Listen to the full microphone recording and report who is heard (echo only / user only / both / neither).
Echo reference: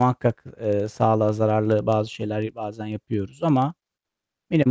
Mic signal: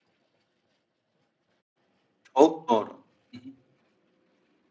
user only